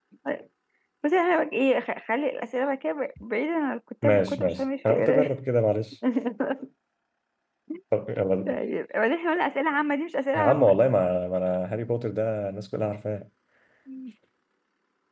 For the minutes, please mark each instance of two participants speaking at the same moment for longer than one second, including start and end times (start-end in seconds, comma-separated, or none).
4.0-5.3